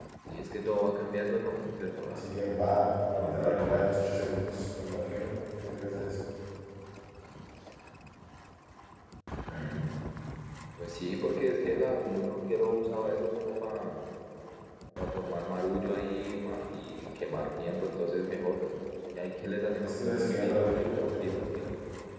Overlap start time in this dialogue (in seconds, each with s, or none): 2.1 s